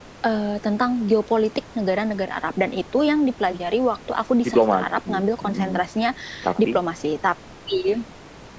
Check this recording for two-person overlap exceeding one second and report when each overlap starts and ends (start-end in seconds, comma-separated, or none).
4.5-5.8